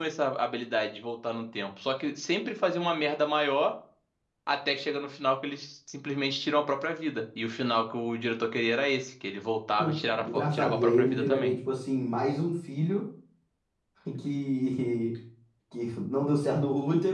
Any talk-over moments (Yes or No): Yes